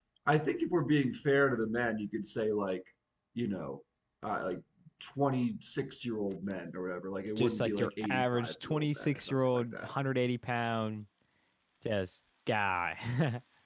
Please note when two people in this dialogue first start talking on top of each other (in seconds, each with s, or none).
7.4 s